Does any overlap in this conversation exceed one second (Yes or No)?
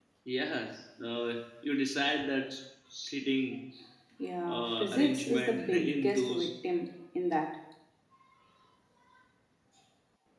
Yes